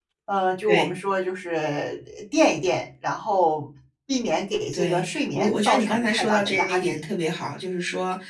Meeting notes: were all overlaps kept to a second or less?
No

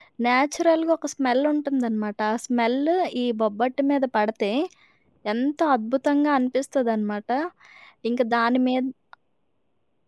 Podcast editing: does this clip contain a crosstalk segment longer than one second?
No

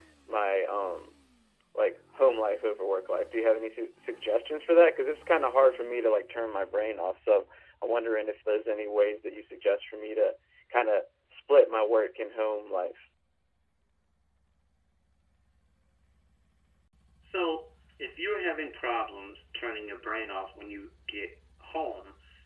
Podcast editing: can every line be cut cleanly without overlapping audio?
Yes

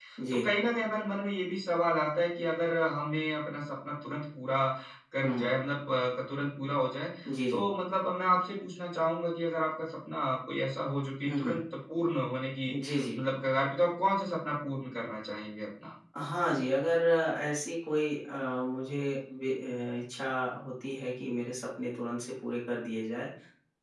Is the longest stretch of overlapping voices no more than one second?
Yes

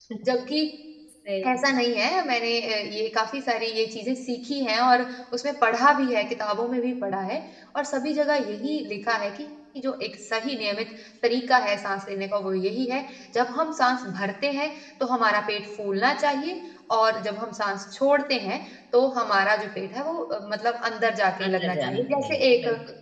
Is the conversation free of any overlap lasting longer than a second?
No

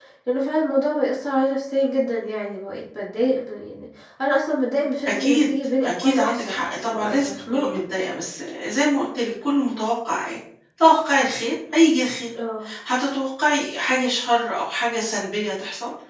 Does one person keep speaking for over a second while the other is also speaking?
Yes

